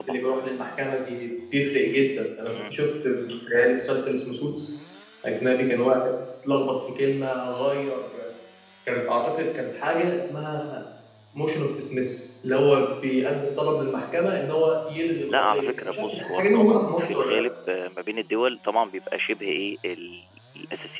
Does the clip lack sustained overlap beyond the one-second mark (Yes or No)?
No